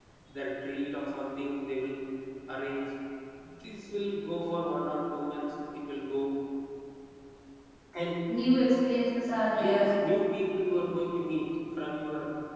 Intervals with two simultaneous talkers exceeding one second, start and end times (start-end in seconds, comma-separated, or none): none